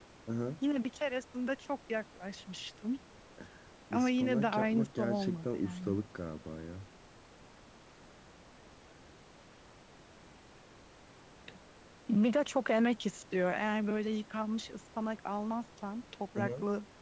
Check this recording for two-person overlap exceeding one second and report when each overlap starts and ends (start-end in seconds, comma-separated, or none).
3.9-6.0